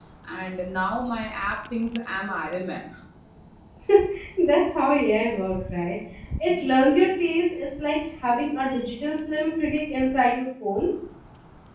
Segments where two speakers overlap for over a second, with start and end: none

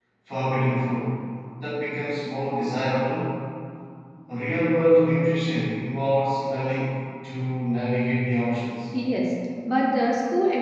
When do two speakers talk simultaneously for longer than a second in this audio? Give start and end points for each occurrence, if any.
none

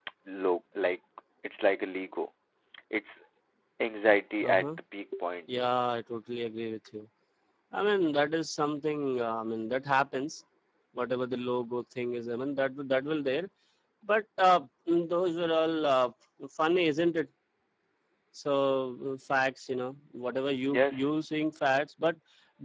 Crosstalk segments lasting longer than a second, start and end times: none

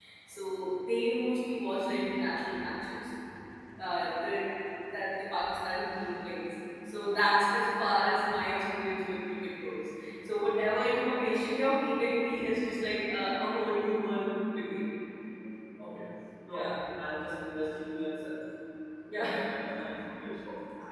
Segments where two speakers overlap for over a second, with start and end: none

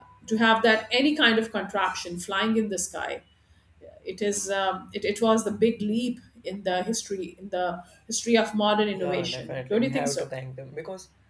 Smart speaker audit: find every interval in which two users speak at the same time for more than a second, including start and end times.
8.9-10.2

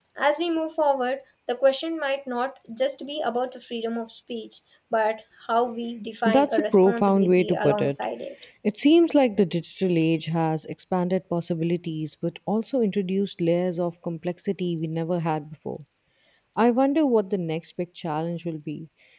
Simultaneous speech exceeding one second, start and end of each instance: 6.2-8.0

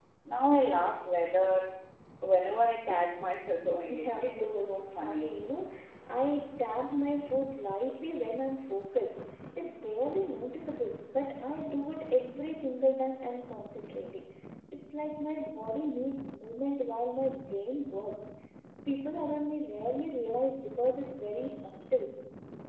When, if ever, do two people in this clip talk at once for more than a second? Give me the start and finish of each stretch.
3.9-5.3

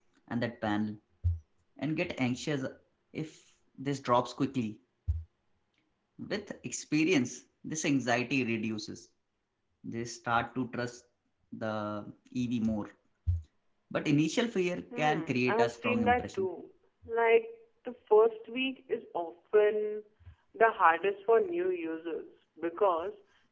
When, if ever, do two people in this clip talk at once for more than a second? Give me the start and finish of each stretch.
15.0-16.5

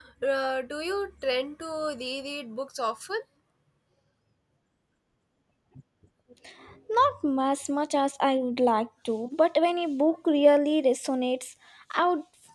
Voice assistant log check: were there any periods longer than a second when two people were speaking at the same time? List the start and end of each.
none

